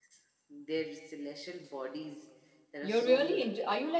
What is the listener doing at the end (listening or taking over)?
taking over